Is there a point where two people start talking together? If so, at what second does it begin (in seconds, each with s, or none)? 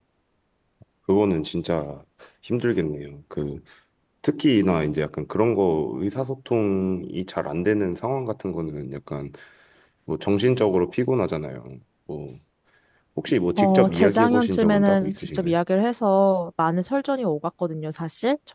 13.6 s